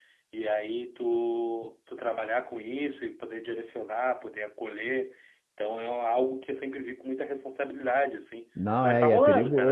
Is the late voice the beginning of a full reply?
Yes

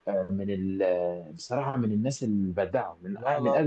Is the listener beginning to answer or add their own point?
Yes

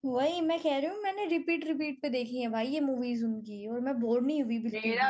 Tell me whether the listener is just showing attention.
No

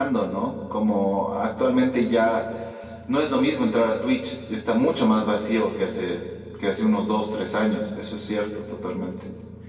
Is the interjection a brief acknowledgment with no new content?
No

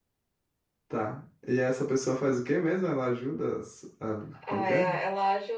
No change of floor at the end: No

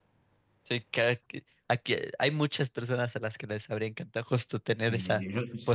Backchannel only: No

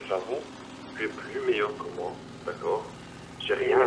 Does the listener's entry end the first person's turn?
Yes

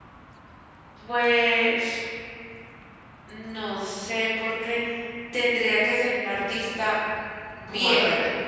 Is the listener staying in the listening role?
No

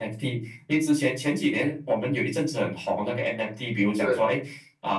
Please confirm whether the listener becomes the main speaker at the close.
No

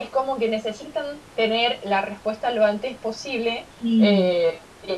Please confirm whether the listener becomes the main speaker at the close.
No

